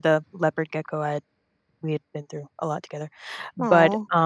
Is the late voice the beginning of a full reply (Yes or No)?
No